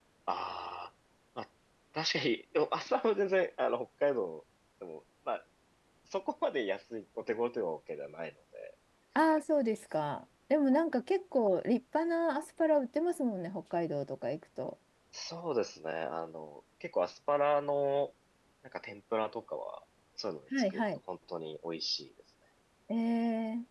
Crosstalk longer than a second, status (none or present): none